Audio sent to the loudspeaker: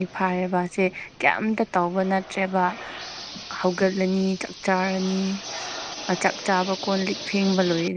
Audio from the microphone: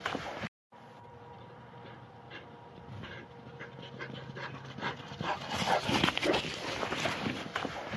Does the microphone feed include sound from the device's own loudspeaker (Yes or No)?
No